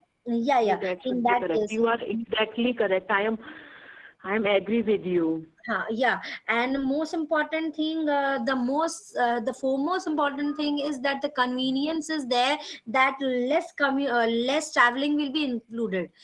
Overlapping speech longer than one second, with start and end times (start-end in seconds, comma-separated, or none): 0.6-1.9